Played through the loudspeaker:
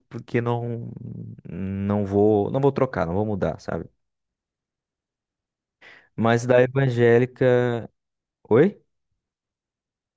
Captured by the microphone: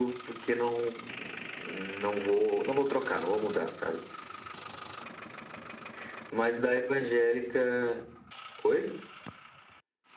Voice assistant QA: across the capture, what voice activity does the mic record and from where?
echo only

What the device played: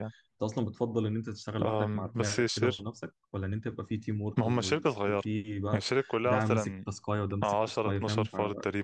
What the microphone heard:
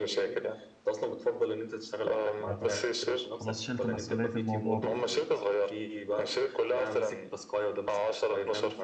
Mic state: both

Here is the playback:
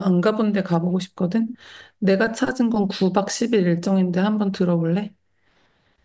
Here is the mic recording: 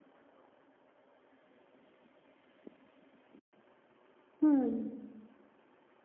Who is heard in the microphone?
user only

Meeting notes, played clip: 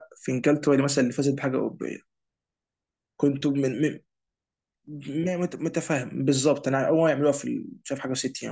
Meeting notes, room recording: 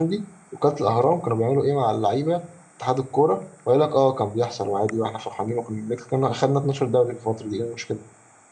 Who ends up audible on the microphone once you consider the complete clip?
user only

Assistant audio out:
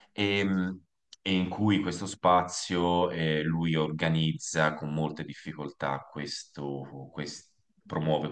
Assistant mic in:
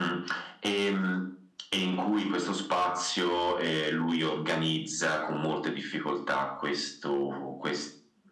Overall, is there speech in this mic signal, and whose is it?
echo only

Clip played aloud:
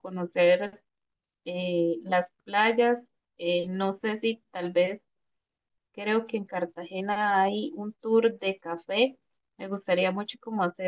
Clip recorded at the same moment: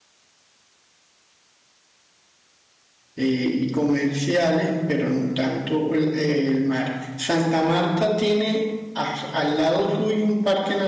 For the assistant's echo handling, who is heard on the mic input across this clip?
user only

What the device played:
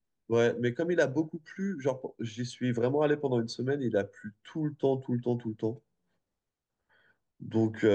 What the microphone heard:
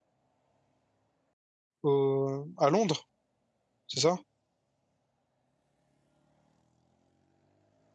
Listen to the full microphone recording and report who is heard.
user only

